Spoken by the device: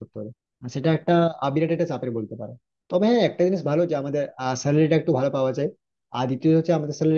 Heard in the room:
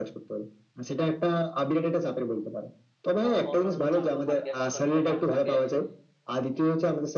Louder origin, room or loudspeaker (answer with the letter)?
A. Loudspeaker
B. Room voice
A